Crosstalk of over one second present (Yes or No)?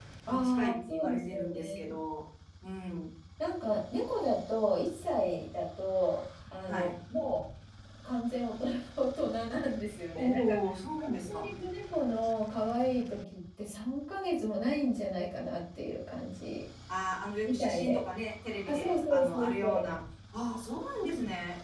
Yes